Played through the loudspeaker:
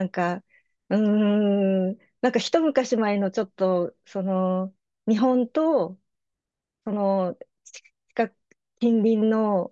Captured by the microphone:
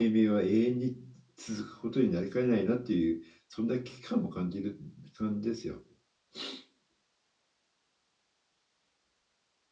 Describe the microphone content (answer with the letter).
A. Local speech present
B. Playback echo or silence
A